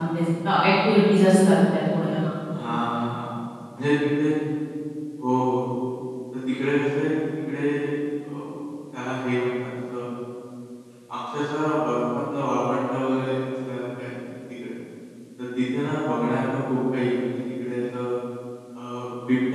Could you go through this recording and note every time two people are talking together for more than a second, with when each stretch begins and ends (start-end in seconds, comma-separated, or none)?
none